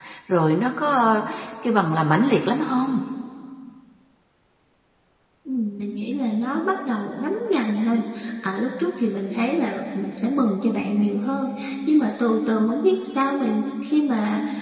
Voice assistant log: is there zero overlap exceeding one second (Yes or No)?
Yes